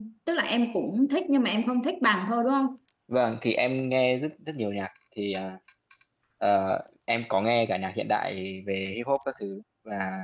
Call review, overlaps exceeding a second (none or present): none